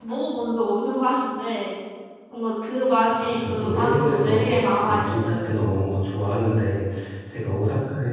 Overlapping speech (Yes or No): Yes